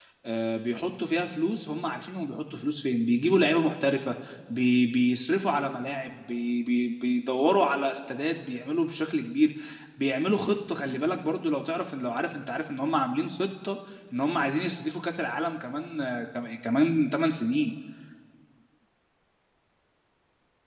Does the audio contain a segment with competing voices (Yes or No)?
No